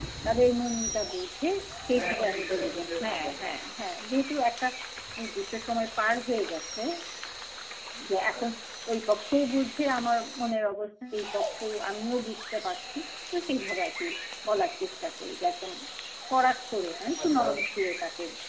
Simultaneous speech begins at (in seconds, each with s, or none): 1.9 s